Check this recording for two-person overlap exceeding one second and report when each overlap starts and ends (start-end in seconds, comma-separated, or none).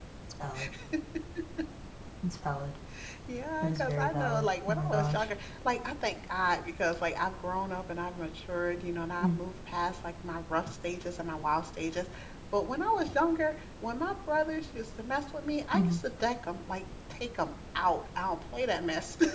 3.6-5.3